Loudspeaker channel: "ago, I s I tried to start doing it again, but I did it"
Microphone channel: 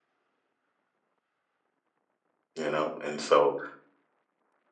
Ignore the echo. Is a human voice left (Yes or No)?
Yes